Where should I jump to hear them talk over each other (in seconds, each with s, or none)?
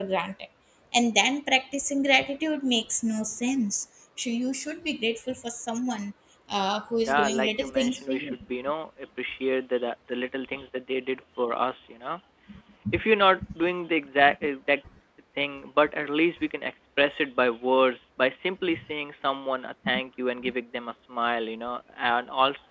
7.1 s